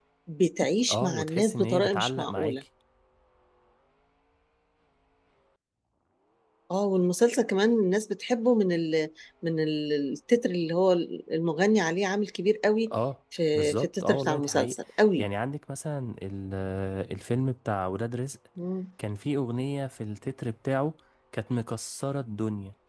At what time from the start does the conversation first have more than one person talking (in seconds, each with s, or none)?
0.9 s